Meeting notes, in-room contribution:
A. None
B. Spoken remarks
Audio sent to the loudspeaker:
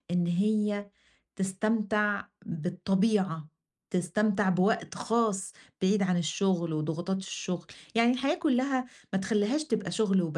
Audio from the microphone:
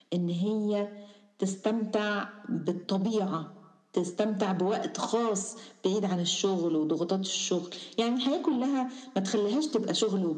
A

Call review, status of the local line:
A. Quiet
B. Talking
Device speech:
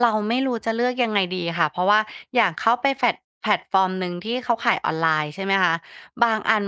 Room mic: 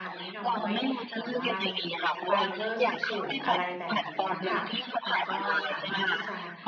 B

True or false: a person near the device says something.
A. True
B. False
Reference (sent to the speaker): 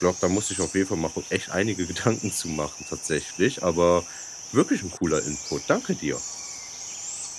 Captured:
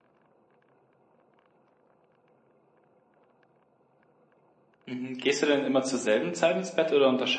A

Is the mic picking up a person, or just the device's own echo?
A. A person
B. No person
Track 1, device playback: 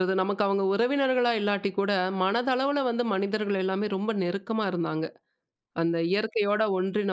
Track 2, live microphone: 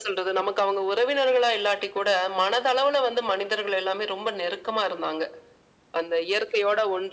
B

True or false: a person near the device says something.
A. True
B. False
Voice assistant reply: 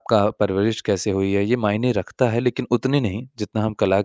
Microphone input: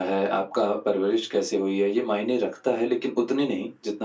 B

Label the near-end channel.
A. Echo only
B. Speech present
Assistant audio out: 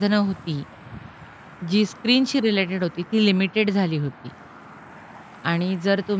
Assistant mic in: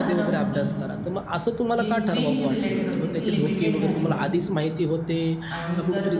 B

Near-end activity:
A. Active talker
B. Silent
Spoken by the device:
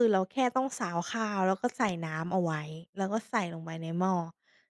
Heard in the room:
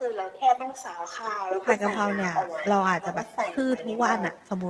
A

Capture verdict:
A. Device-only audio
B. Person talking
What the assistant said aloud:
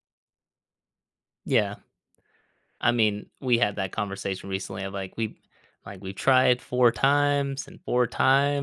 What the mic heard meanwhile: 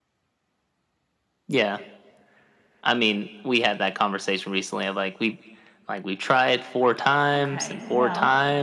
B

